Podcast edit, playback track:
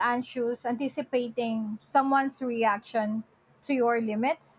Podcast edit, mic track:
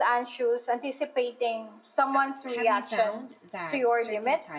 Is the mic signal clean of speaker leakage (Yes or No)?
No